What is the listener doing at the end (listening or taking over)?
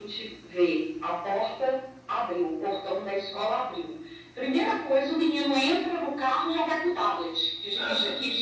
listening